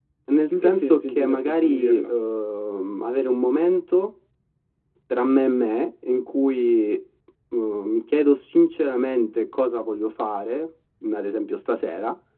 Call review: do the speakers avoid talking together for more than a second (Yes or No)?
No